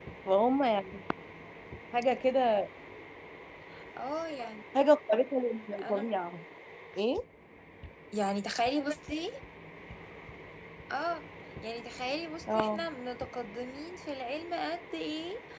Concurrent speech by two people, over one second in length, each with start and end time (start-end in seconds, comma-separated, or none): none